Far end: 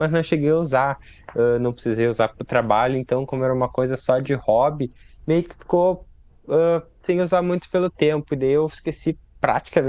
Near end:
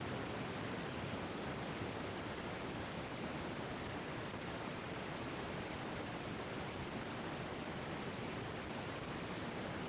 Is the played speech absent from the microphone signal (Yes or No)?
Yes